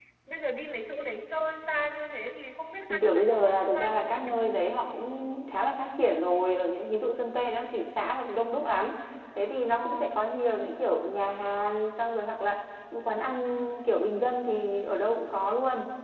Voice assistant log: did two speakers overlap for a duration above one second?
Yes, from 3.0 s

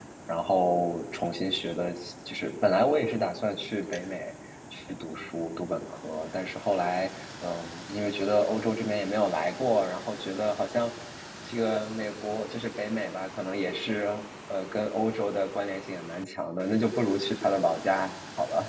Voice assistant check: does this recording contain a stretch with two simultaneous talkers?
No

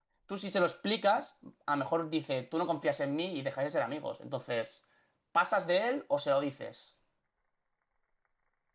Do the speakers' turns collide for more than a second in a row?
No

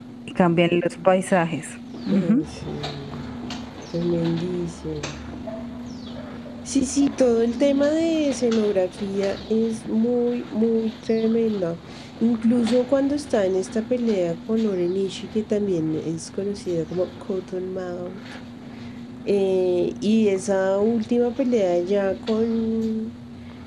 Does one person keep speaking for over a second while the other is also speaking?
No

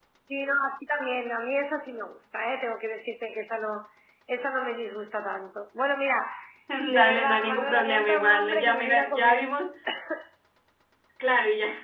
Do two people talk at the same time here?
Yes, from 6.9 s

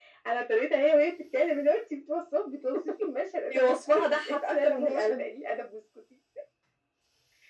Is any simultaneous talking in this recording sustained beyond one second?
Yes, from 3.5 s

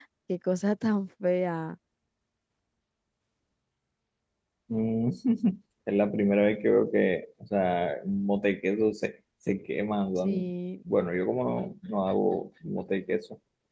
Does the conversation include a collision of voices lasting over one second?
No

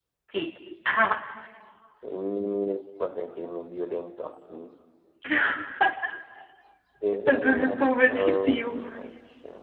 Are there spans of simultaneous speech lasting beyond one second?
Yes, from 7.3 s

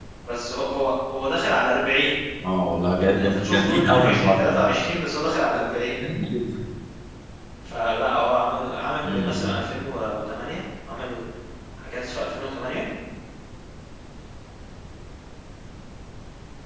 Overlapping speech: Yes, from 3.0 s

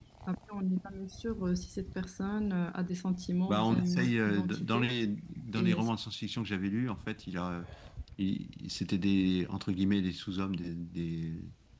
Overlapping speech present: Yes, from 3.5 s

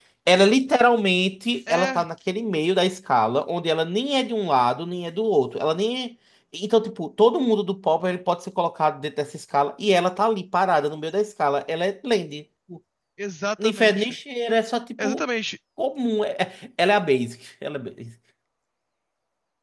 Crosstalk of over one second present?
No

